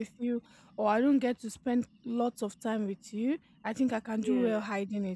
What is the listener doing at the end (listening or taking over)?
listening